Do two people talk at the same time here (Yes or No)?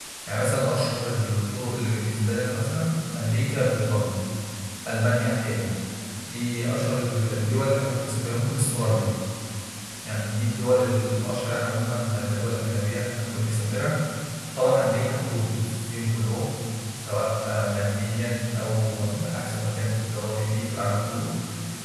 No